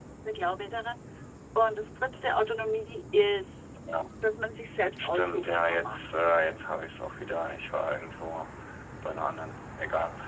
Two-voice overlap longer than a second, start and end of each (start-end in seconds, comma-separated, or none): 5.0-6.2